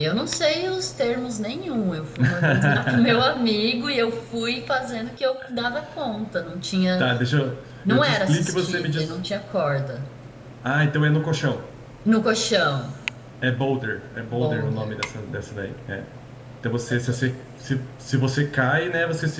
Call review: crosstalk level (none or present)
present